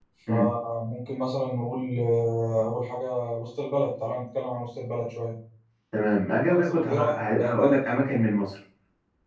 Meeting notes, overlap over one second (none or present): present